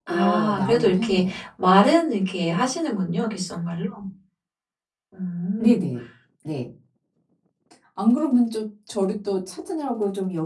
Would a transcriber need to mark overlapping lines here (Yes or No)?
Yes